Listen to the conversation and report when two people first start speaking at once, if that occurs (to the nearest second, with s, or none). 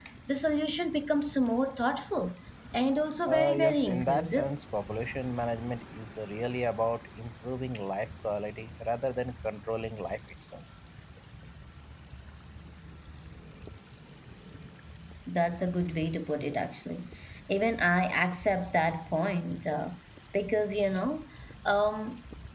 3 s